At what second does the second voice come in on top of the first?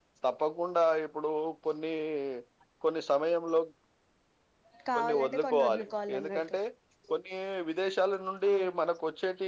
4.9 s

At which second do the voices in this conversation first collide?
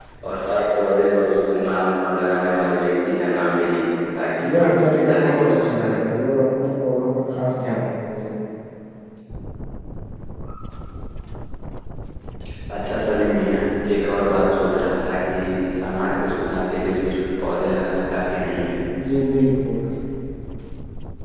4.4 s

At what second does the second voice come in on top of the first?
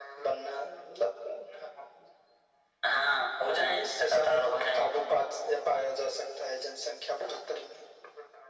3.5 s

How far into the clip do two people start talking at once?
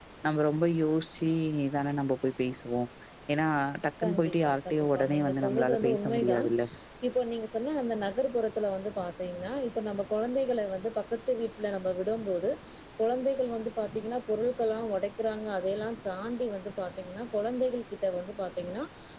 4.0 s

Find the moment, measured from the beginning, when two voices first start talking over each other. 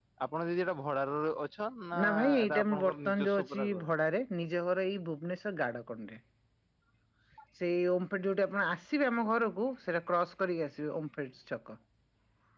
1.9 s

